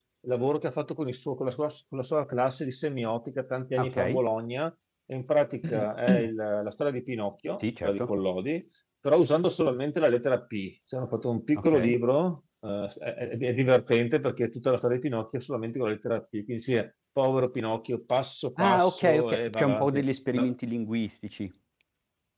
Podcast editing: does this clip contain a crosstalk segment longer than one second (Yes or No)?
Yes